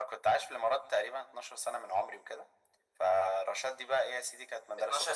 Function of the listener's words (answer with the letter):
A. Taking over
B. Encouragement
A